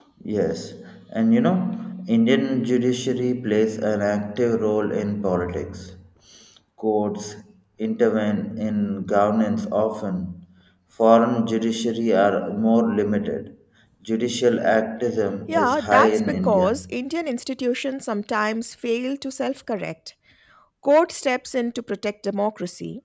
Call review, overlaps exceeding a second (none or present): present